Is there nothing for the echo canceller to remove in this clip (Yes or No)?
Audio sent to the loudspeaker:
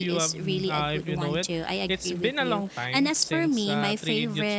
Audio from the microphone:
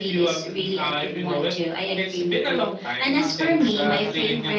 No